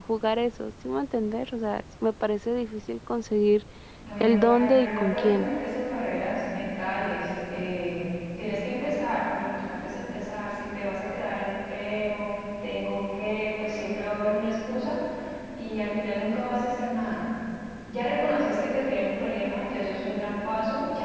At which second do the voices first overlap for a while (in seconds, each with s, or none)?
4.2 s